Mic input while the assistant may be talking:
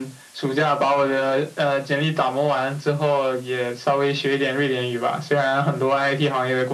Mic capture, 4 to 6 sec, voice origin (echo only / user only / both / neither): echo only